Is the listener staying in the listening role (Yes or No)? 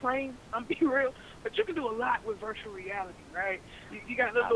Yes